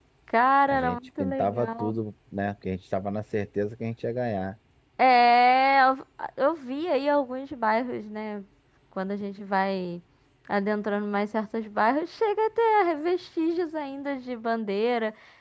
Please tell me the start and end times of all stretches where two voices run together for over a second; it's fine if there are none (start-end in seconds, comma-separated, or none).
0.7-1.9